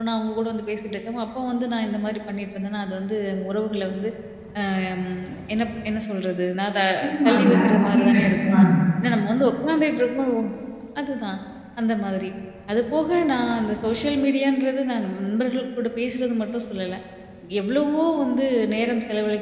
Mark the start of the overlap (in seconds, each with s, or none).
7.2 s